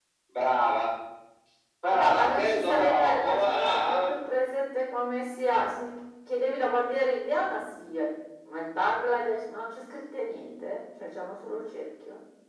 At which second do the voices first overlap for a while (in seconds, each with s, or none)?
1.9 s